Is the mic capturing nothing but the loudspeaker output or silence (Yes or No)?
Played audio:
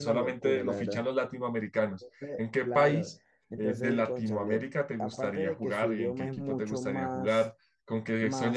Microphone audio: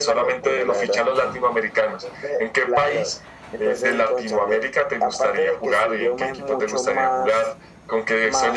Yes